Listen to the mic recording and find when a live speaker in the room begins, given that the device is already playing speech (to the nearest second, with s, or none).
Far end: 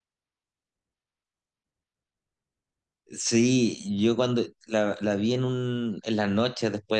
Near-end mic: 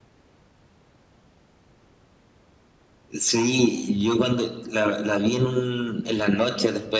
none